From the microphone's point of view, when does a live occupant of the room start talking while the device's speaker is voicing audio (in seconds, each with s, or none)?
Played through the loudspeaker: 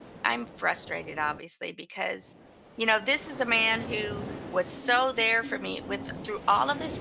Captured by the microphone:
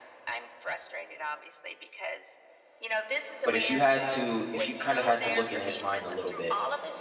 3.4 s